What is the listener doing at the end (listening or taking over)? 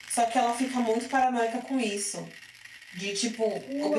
taking over